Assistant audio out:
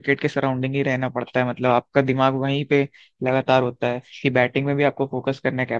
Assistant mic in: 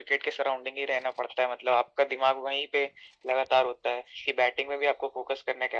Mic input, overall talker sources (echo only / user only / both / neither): echo only